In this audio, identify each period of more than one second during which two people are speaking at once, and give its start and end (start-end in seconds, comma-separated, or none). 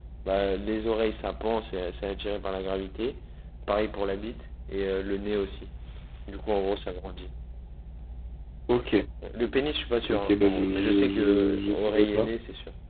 10.1-12.3